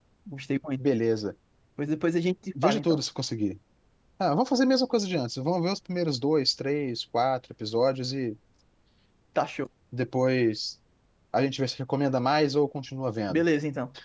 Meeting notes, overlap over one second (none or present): none